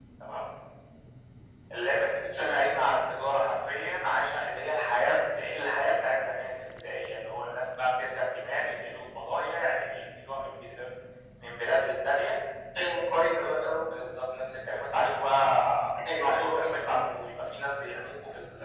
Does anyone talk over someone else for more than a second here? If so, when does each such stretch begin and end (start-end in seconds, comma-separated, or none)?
none